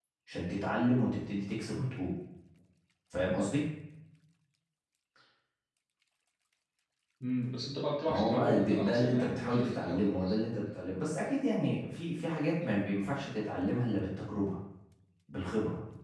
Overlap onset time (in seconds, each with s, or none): 8.1 s